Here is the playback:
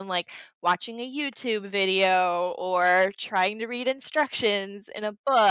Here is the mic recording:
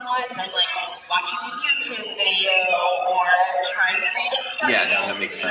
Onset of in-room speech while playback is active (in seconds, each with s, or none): 4.6 s